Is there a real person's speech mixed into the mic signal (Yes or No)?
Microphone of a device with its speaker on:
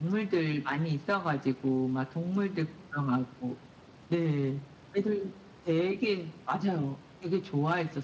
No